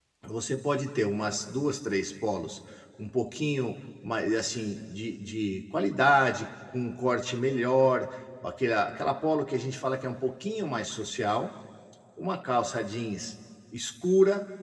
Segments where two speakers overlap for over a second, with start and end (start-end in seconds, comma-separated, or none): none